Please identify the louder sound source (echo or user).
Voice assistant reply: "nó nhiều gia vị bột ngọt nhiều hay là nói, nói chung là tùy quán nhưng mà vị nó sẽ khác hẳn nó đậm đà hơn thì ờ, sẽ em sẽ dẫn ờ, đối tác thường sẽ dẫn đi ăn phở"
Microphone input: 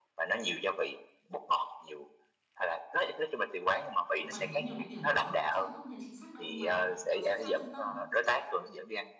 echo